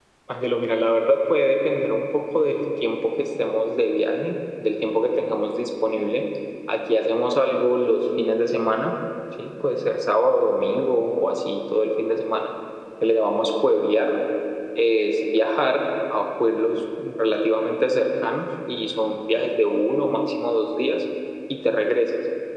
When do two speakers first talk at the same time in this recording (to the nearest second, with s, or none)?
none